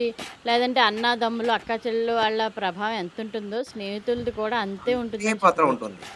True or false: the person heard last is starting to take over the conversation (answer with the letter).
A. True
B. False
A